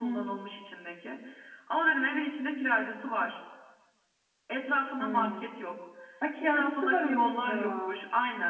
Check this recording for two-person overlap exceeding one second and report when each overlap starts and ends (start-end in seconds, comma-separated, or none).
6.5-8.0